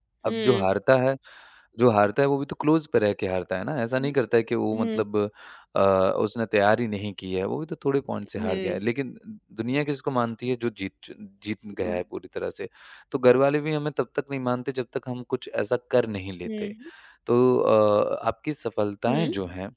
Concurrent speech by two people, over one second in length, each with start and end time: none

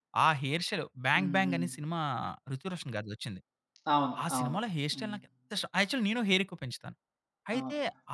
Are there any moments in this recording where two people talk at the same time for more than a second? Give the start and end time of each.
none

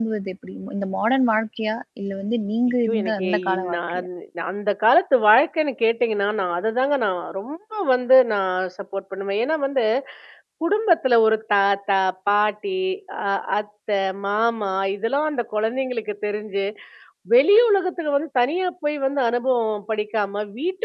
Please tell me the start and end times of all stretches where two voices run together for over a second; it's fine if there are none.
2.9-4.1

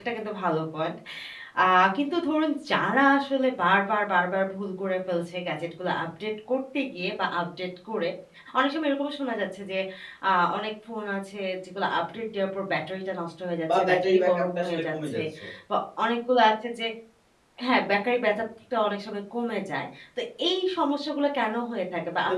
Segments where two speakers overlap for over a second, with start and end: 13.8-15.2

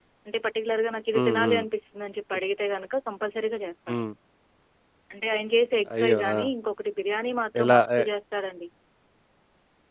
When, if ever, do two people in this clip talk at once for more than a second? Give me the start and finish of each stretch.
none

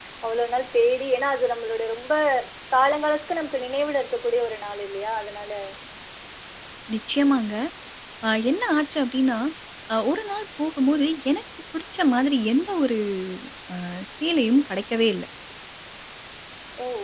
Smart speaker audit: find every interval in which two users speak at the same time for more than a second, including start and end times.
none

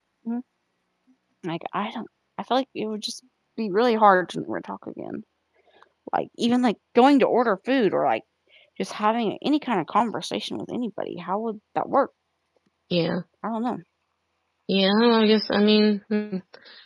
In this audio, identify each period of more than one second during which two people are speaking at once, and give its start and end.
none

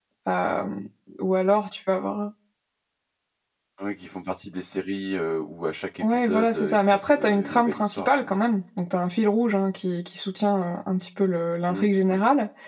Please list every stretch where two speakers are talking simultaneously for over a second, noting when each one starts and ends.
6.0-8.5

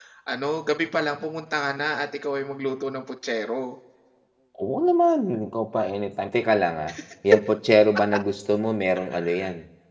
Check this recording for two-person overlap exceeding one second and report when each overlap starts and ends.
none

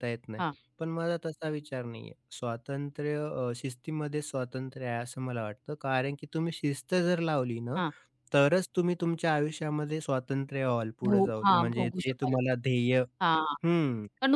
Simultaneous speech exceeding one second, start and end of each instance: 11.1-12.4

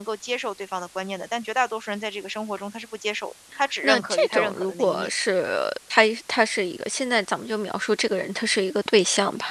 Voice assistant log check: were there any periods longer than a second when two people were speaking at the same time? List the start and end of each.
3.8-5.1

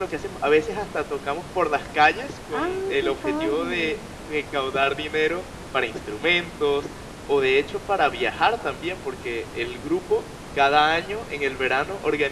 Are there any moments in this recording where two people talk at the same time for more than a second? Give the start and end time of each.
2.5-4.0

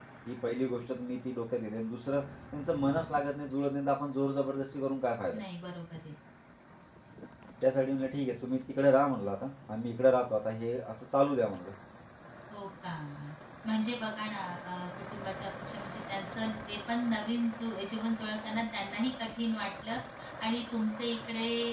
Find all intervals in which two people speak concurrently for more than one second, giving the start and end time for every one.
none

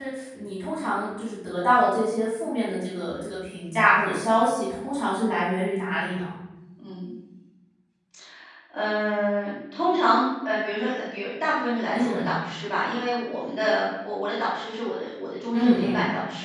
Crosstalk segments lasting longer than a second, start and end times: none

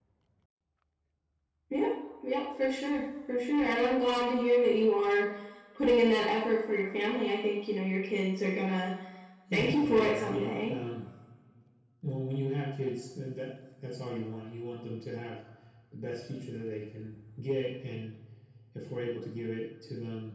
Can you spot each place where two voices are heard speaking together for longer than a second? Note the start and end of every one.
9.5-10.8

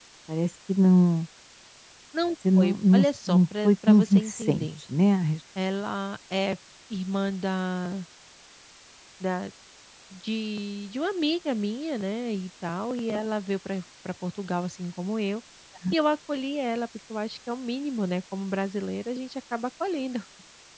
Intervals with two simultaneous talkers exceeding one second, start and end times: 2.6-4.7

